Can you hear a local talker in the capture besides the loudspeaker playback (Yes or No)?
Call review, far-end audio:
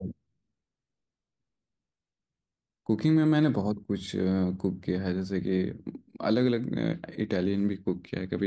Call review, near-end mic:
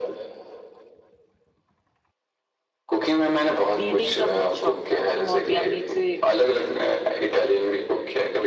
Yes